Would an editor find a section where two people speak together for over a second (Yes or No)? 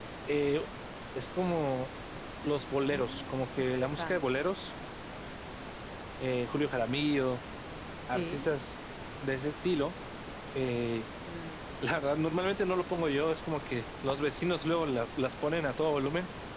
Yes